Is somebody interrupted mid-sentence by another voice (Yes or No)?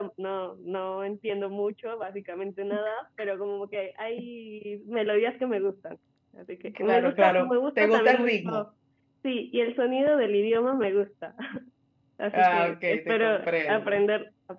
Yes